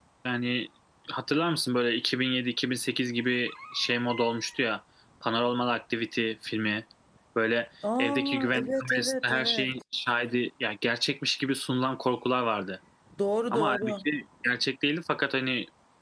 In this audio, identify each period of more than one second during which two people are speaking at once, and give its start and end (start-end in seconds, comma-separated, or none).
8.0-9.7